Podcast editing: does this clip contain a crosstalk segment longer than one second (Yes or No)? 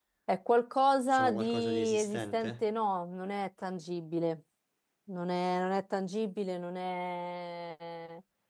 Yes